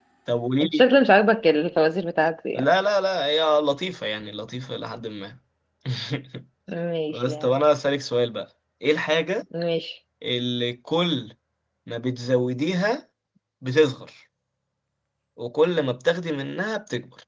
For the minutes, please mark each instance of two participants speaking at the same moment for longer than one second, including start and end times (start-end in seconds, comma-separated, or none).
none